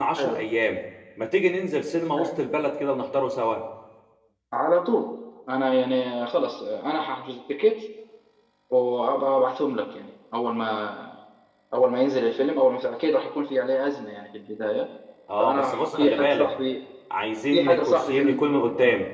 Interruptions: present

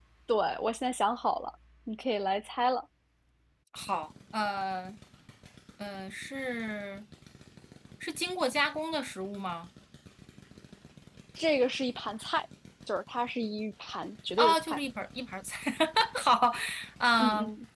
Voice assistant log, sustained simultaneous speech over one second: none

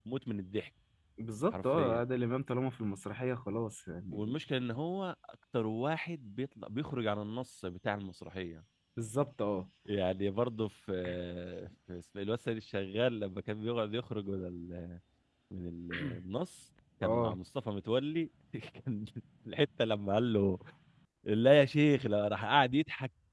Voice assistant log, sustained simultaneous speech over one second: none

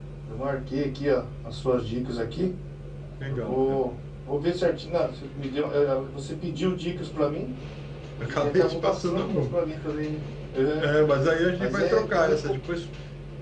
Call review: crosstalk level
present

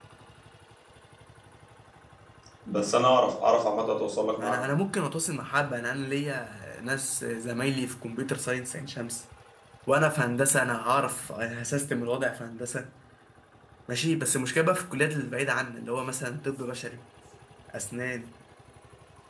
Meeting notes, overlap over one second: none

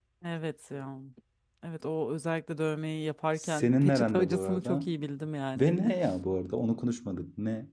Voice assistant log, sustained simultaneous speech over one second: present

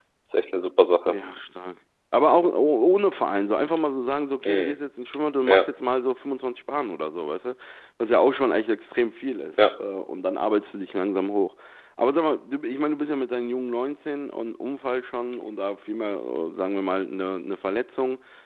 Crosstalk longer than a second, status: none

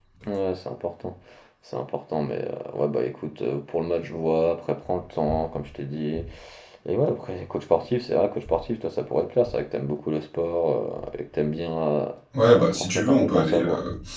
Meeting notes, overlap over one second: present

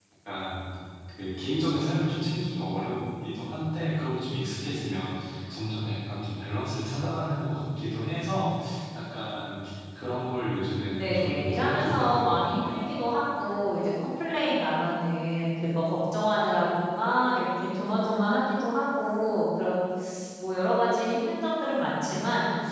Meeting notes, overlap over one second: present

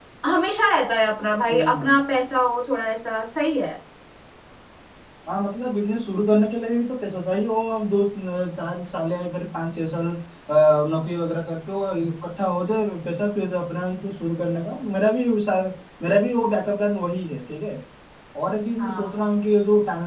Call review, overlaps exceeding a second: none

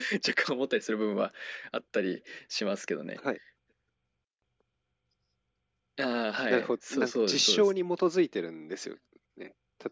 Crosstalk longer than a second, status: present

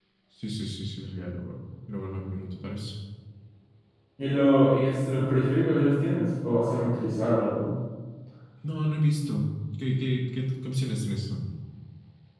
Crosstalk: none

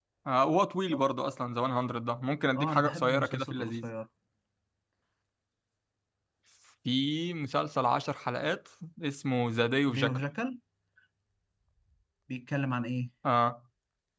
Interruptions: present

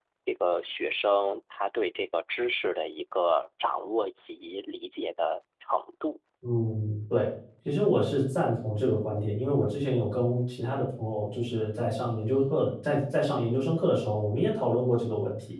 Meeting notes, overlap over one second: none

